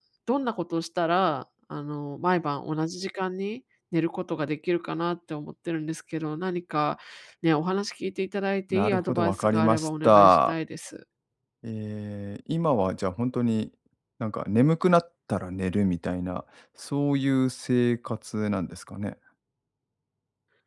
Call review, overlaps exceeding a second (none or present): present